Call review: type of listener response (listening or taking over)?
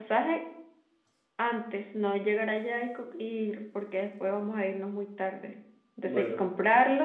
listening